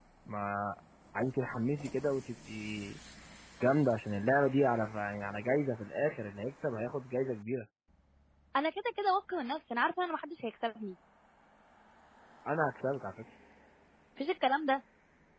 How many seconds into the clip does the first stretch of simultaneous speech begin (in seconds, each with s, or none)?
none